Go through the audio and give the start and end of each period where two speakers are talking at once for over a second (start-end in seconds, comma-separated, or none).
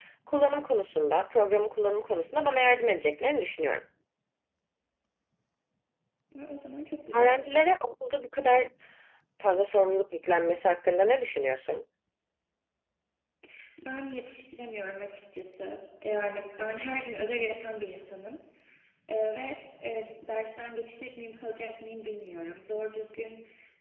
none